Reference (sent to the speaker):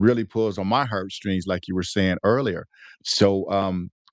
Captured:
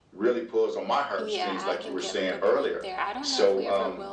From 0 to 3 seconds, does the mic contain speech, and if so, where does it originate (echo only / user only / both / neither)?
both